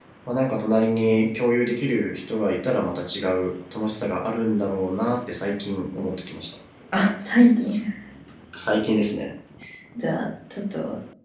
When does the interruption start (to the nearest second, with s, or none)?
none